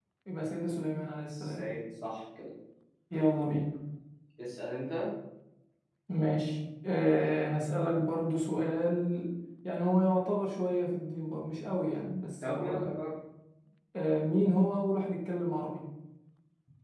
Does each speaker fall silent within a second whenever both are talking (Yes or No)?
Yes